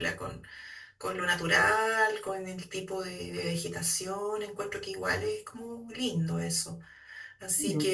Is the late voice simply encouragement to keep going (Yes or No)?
Yes